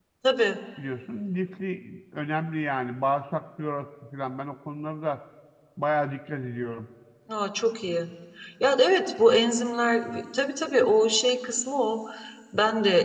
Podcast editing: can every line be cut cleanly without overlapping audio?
Yes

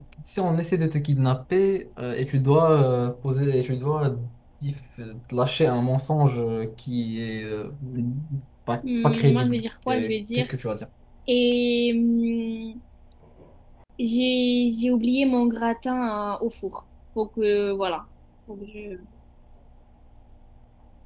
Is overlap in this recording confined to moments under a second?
No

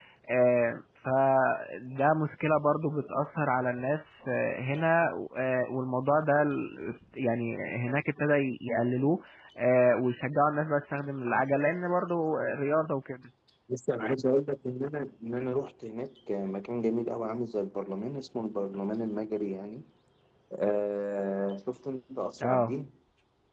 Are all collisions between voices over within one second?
Yes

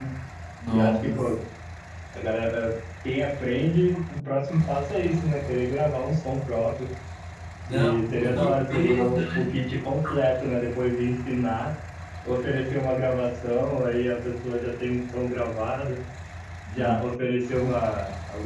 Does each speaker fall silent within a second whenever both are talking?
No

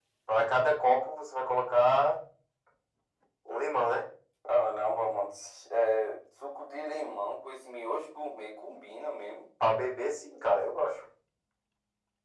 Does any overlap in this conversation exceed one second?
No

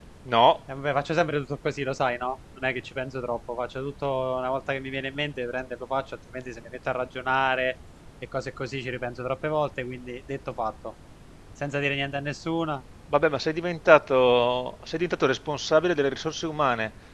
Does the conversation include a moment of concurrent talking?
No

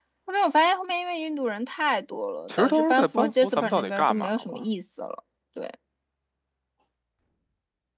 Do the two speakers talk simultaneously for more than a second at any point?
Yes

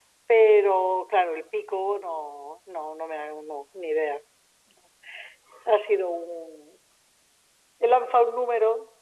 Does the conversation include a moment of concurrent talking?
No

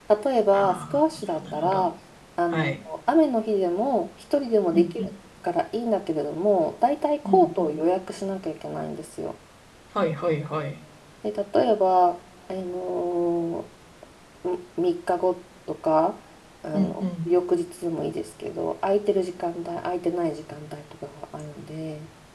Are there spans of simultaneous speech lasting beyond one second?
Yes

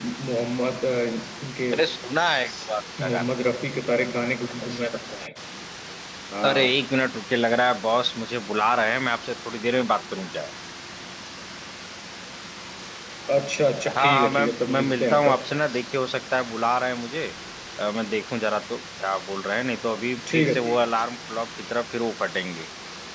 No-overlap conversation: No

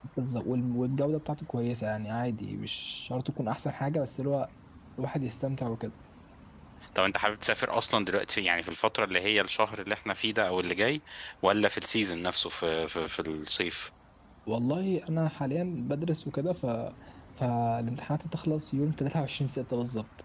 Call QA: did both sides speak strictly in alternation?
Yes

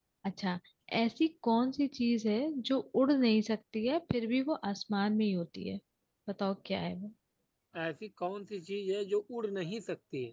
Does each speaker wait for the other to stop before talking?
Yes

